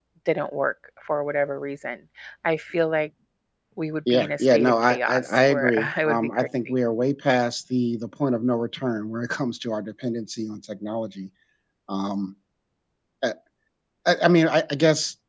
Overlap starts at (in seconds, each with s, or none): 4.1 s